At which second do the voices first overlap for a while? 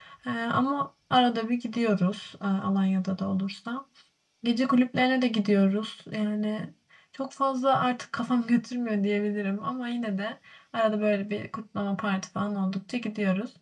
none

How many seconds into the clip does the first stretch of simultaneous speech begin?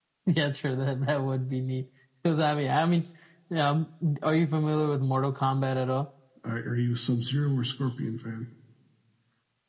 none

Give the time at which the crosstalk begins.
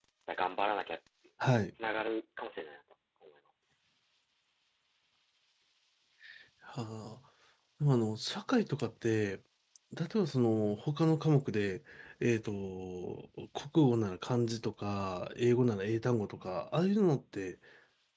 none

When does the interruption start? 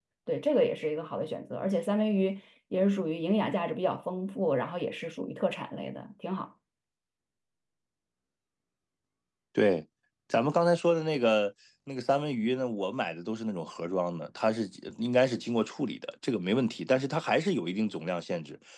none

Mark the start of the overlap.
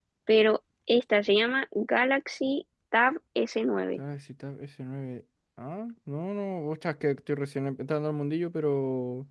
none

